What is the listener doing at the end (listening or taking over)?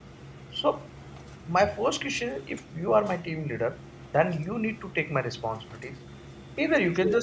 listening